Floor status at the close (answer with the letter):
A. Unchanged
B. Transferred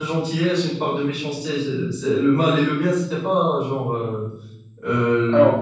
A